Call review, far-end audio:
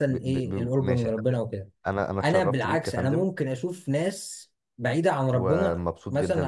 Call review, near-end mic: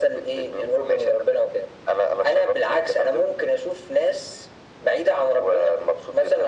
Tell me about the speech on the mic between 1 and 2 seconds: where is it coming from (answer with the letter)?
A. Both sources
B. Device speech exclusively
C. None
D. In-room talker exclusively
B